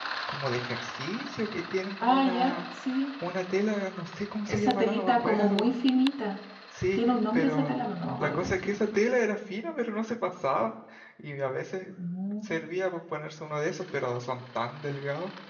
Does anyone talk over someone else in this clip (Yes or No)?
Yes